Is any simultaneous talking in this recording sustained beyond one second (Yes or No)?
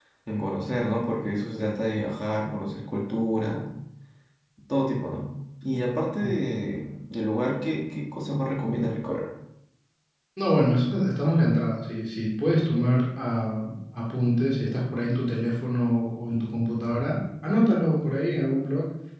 No